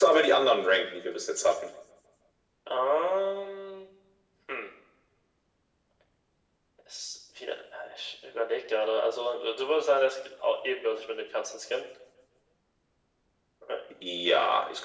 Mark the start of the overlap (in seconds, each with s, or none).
none